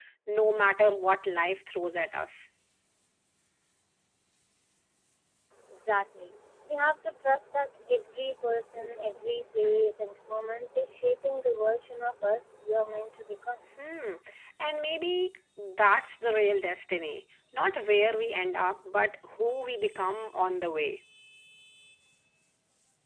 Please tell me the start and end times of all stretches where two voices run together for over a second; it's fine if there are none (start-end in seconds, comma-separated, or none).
none